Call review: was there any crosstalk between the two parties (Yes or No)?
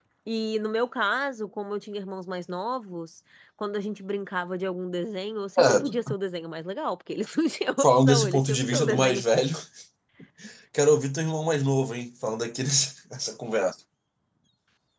Yes